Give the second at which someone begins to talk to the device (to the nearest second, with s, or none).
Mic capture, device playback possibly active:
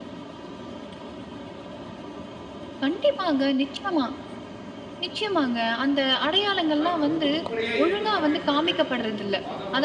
7 s